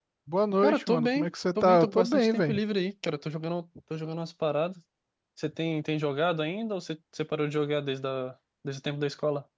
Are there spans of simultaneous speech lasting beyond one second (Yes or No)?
Yes